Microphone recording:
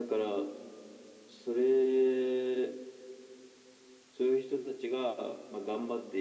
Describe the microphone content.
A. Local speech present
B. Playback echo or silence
B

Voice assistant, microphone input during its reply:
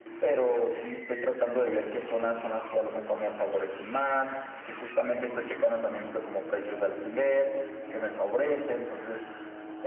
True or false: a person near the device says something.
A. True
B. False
B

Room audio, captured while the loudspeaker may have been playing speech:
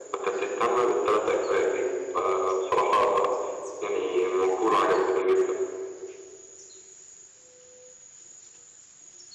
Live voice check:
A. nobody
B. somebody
A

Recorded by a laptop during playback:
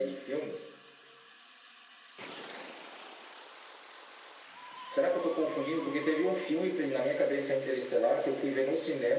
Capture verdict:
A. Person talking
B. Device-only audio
B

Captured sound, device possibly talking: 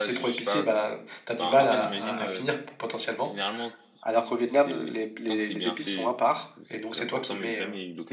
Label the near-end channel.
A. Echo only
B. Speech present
B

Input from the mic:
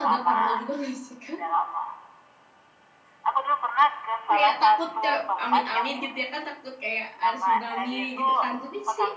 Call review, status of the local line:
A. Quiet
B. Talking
B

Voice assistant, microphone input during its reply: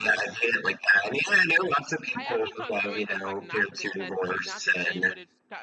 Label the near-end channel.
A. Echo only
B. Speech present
B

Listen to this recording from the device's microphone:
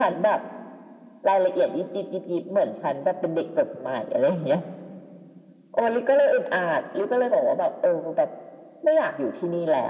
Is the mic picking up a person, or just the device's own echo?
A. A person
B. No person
B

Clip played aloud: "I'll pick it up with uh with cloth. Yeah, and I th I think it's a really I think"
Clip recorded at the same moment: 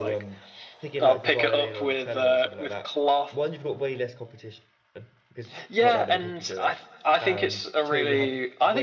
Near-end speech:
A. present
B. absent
A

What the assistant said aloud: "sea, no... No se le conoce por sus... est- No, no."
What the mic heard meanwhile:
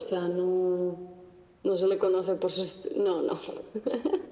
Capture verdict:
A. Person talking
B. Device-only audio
B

